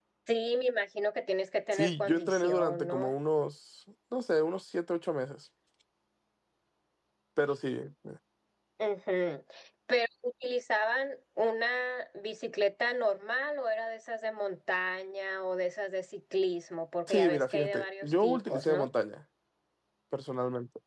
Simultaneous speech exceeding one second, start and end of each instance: 1.7-3.1, 17.1-18.9

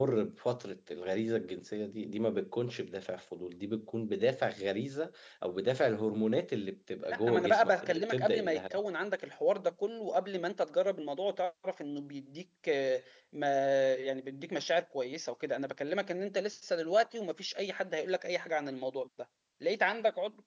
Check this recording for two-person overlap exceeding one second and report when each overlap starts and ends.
7.1-8.6

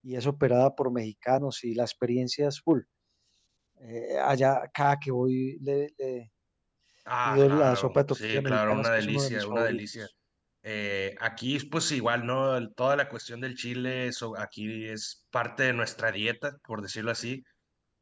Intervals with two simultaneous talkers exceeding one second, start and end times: 7.2-9.8

